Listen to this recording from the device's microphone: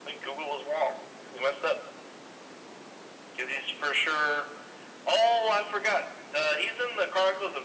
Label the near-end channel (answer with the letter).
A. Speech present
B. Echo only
B